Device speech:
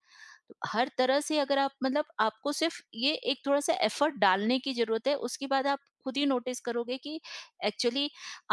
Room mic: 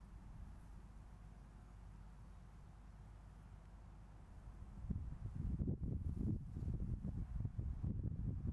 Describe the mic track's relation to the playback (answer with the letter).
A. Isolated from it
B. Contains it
A